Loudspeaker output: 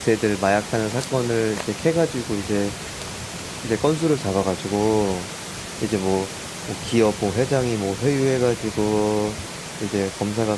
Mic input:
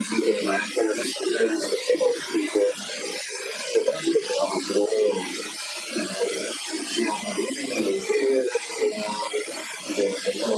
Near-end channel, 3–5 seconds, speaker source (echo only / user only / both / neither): echo only